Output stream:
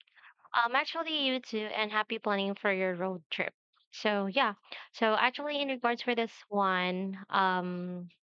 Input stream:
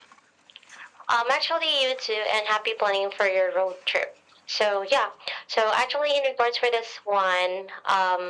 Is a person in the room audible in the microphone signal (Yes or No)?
No